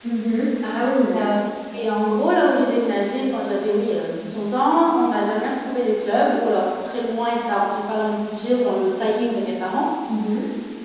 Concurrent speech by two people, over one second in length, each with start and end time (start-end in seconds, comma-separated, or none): none